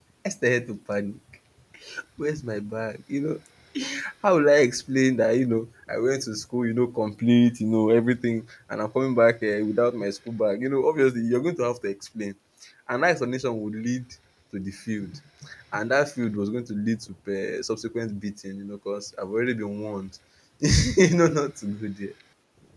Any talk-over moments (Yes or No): No